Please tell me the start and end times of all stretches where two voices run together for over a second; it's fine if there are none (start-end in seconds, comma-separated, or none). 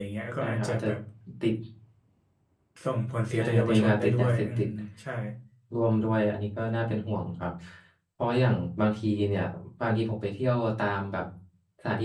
3.4-4.6